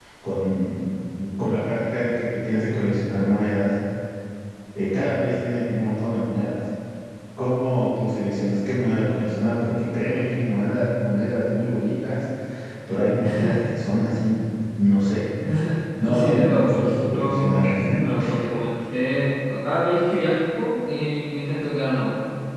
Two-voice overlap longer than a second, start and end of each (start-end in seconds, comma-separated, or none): 16.0-17.5